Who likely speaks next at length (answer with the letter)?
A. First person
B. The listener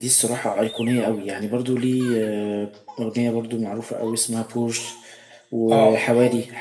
A